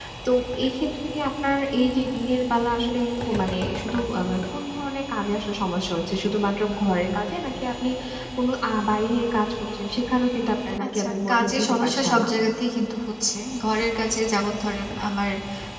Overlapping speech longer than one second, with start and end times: 10.9-12.3

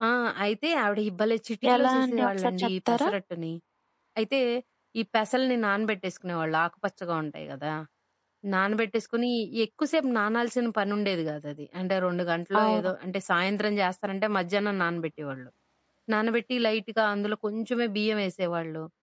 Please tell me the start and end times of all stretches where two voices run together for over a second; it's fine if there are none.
1.7-3.1

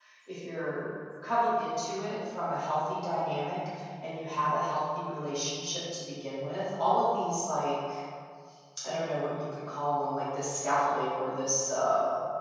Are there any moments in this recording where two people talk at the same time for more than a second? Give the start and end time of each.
none

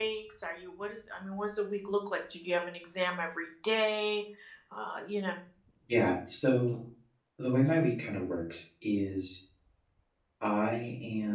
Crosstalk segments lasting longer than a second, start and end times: none

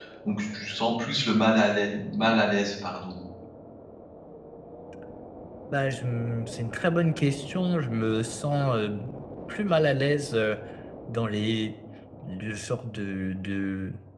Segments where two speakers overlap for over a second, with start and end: none

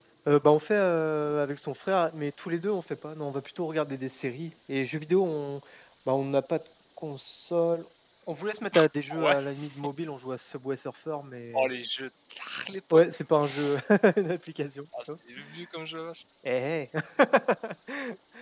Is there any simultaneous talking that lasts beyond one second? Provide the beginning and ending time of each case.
none

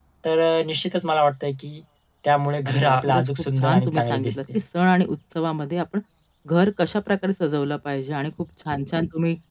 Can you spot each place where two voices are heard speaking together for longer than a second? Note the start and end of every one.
2.7-4.6

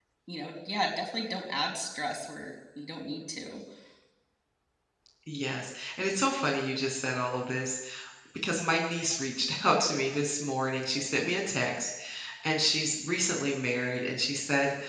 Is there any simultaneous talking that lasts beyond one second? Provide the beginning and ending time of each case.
none

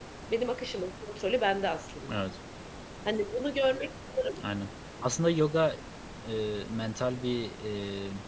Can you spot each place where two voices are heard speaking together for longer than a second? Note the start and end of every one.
none

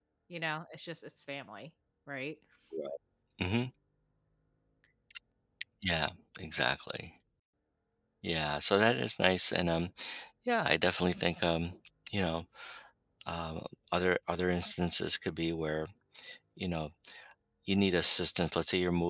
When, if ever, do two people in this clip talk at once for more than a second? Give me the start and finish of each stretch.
none

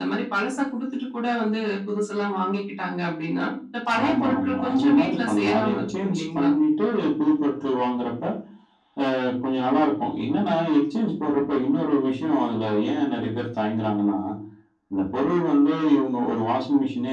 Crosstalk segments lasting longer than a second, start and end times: 4.0-6.5

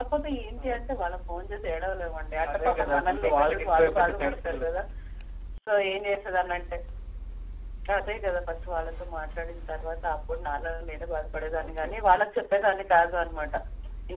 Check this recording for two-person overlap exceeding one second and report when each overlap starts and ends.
2.5-4.7

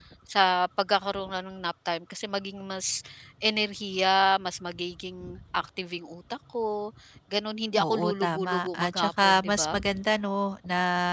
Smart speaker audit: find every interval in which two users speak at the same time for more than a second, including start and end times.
7.8-9.8

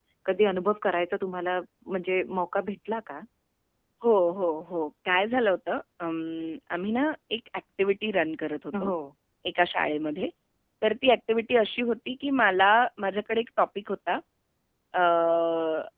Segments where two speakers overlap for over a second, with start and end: none

